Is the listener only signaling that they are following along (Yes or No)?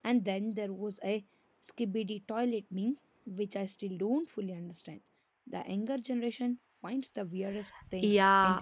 No